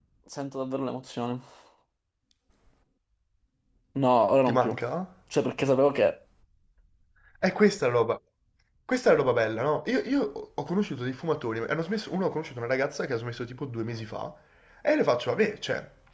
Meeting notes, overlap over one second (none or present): none